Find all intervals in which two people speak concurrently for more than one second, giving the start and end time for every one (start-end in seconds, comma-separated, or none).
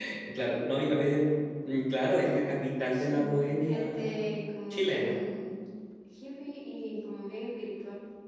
2.9-4.3